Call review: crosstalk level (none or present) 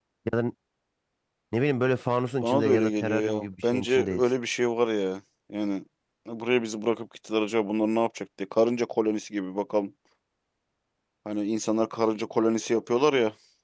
present